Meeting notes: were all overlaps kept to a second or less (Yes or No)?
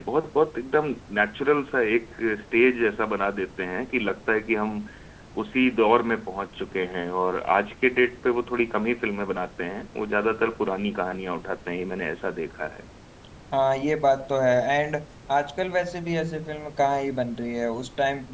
Yes